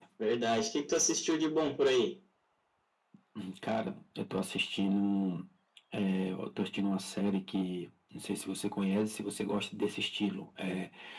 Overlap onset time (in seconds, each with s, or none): none